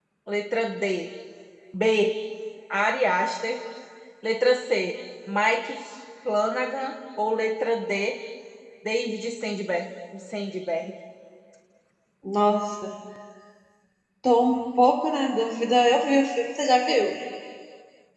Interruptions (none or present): none